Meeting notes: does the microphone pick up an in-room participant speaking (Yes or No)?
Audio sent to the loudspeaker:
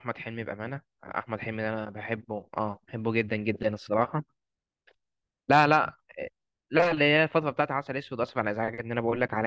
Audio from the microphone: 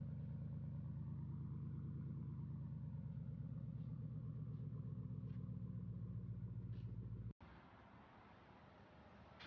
No